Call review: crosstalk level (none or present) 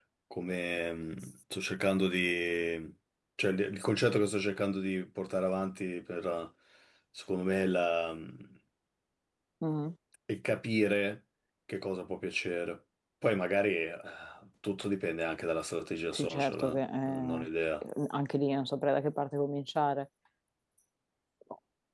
present